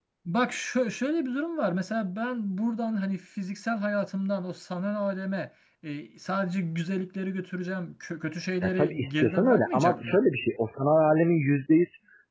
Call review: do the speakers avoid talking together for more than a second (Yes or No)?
No